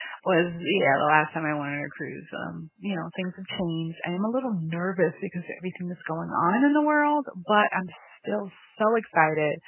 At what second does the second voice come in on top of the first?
none

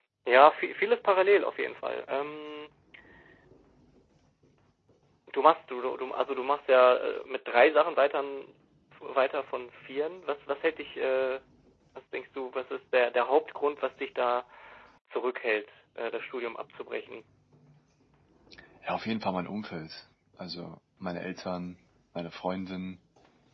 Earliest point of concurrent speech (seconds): none

